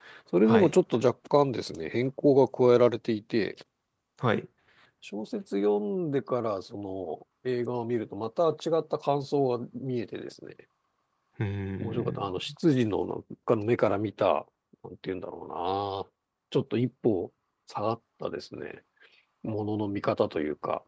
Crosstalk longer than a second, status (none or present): none